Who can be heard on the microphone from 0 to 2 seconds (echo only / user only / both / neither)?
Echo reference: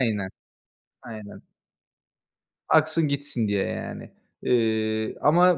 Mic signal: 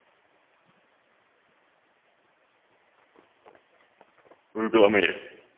neither